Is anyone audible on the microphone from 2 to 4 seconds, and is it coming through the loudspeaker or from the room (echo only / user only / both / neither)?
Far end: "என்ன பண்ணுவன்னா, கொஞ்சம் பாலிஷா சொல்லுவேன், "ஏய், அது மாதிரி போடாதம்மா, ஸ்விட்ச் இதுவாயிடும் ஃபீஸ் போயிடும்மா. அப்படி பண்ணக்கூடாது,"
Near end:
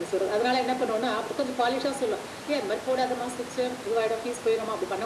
echo only